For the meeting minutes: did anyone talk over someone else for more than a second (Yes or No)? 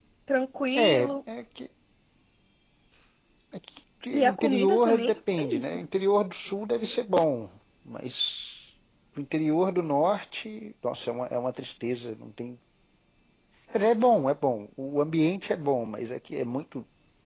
Yes